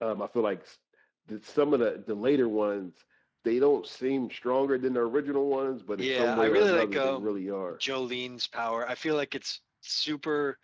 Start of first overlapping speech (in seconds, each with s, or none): 6.0 s